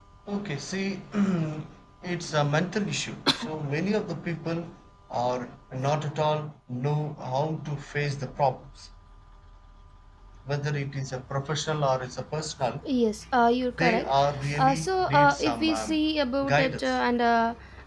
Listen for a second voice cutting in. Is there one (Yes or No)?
Yes